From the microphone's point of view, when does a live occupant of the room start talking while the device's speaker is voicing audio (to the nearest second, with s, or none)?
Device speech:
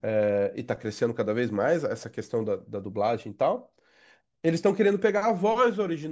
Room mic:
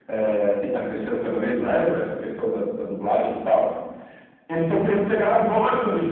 none